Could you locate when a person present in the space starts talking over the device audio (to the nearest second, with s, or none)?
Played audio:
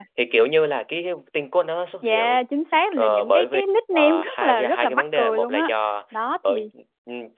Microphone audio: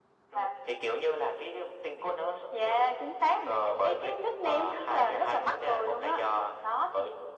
none